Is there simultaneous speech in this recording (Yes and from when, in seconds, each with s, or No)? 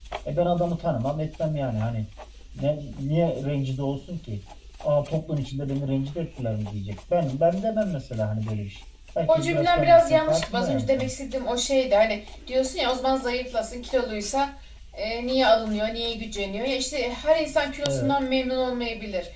Yes, from 9.3 s